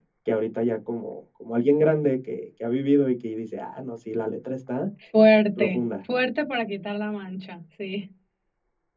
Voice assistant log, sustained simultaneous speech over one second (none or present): none